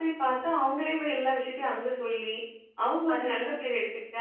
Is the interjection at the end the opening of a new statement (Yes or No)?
No